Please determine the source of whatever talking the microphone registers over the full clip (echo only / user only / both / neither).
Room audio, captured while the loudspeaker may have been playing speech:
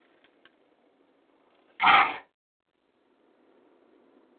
user only